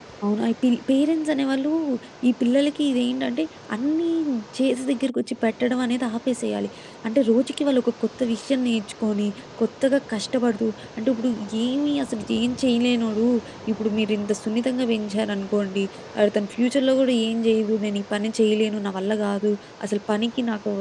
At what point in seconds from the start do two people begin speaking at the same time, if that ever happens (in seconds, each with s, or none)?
none